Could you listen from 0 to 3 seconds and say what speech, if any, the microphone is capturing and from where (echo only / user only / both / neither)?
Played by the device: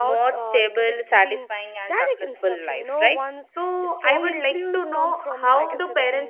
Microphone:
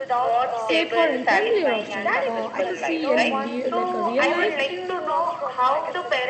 both